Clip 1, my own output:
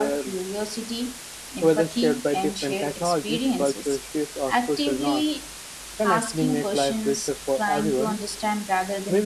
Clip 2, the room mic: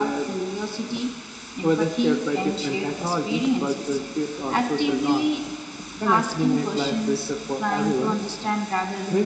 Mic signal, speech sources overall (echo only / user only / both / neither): echo only